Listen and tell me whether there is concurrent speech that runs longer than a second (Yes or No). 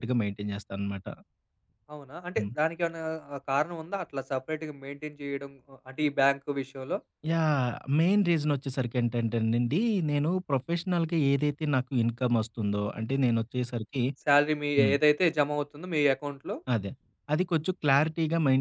No